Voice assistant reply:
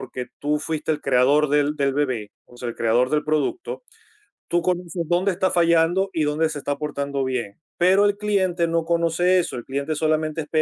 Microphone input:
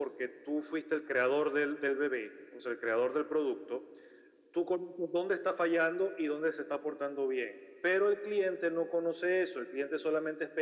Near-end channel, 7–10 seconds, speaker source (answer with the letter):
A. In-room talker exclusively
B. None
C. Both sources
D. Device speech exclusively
D